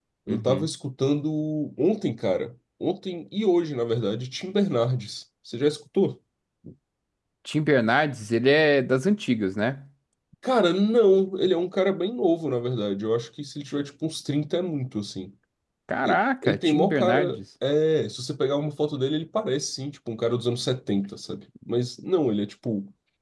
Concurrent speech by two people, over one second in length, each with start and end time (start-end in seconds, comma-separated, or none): 16.0-17.4